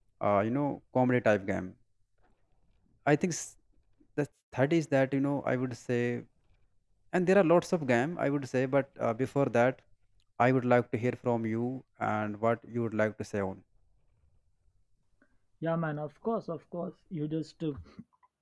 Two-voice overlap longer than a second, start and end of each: none

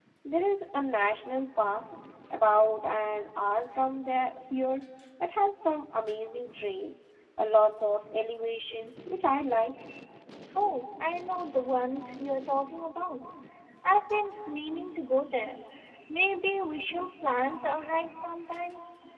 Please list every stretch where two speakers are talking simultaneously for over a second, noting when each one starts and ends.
none

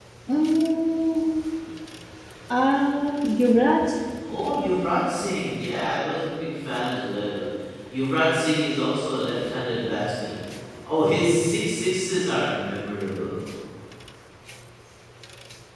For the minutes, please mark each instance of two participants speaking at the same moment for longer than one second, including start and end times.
none

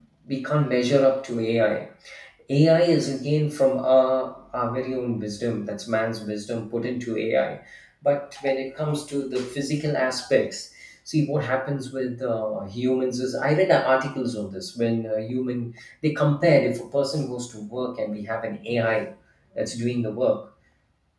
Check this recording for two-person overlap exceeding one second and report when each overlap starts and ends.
none

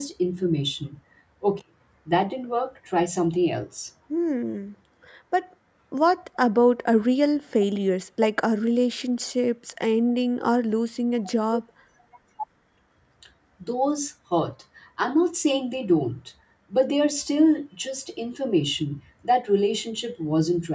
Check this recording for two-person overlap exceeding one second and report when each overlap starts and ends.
none

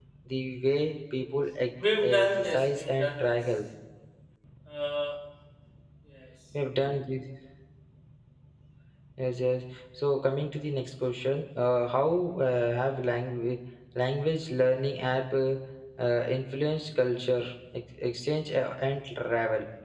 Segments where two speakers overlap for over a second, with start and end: 2.0-3.4

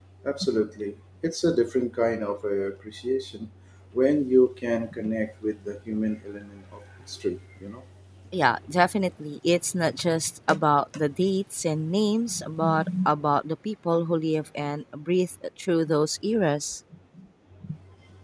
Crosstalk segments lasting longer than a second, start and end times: none

